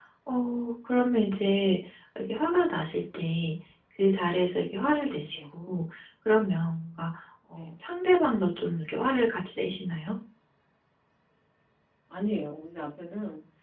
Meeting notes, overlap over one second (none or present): none